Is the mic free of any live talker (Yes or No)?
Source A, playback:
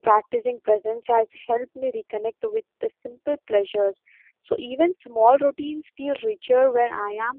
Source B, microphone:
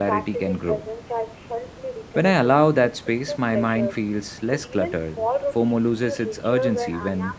No